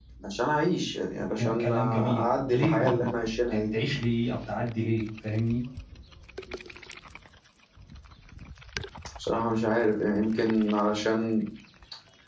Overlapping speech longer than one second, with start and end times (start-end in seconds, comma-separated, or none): 1.4-3.1